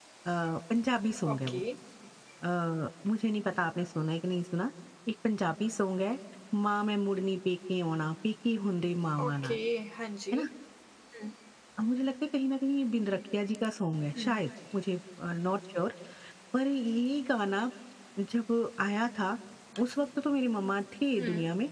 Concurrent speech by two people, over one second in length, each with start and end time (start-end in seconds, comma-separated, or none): none